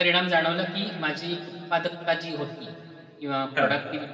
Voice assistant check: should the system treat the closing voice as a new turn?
No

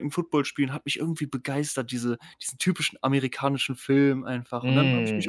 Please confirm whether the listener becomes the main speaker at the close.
Yes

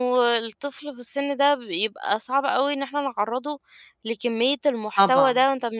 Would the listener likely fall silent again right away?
Yes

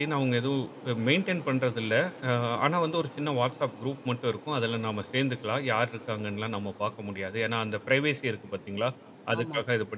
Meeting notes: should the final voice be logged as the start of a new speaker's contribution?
No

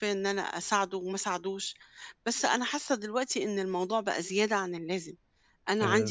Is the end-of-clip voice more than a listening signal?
No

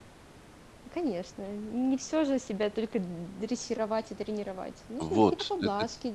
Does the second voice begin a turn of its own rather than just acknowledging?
Yes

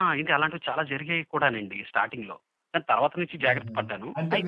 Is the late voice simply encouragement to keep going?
No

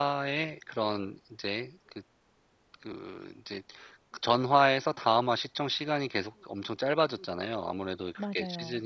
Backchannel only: Yes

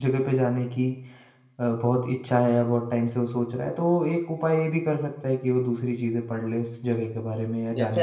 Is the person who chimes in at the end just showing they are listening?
No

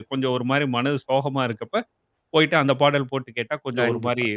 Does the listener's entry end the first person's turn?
Yes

